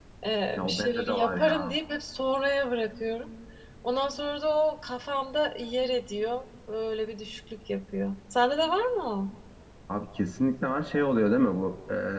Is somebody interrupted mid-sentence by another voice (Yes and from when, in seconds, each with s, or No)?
Yes, from 0.6 s